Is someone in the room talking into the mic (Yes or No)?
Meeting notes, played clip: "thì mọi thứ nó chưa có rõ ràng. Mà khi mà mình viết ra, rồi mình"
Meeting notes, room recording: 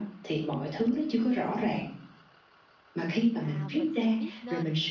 Yes